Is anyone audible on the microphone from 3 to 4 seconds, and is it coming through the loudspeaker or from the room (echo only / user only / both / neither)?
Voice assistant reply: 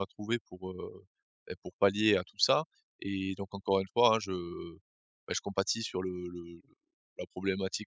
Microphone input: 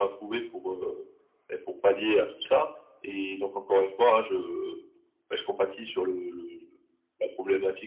echo only